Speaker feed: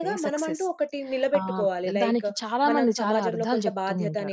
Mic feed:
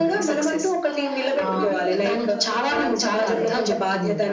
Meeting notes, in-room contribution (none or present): present